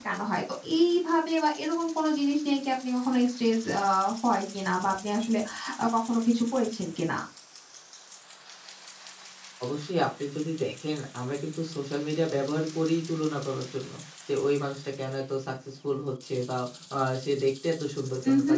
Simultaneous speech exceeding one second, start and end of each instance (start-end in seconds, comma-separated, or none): none